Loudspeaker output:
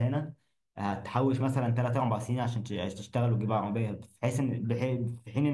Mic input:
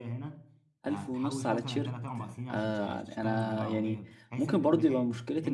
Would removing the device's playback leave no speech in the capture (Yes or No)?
No